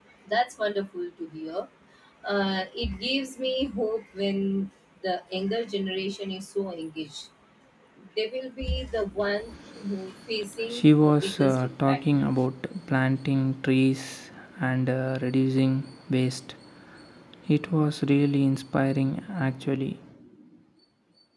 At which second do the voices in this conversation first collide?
10.7 s

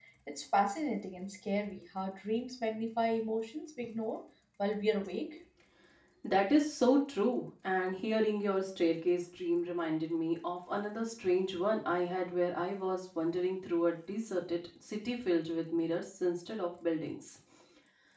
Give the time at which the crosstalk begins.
none

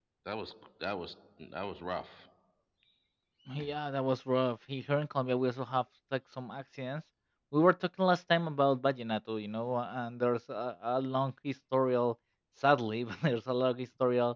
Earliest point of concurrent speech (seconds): none

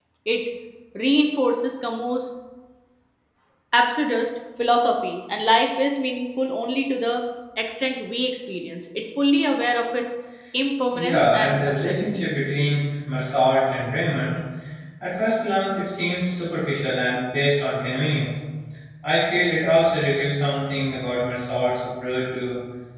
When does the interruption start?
10.9 s

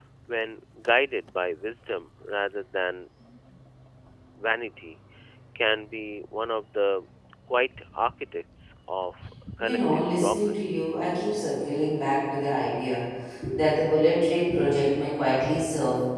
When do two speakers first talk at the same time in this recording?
9.6 s

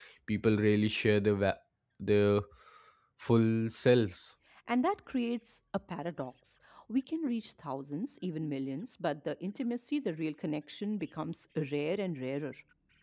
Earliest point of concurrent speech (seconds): none

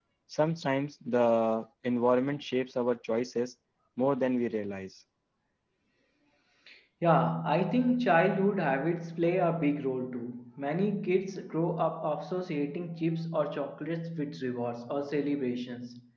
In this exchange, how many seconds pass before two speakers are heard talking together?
none

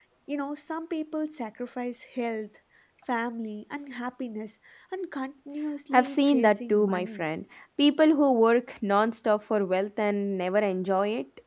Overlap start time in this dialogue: 5.9 s

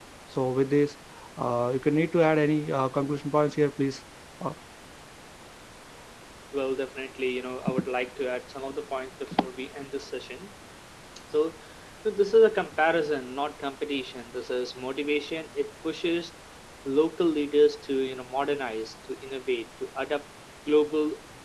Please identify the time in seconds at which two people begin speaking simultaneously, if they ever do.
none

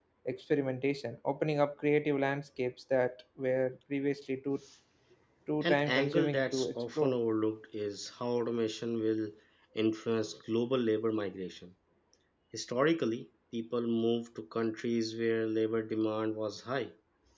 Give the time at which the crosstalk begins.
5.6 s

